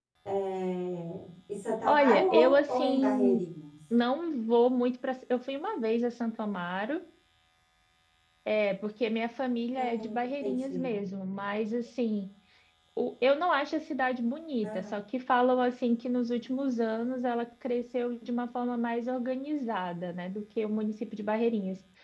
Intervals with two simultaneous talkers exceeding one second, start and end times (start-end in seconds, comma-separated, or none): 1.8-3.4